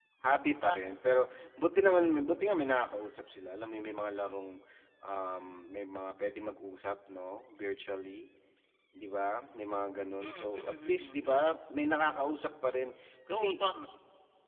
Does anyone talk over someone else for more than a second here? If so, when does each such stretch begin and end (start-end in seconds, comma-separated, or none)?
10.2-11.4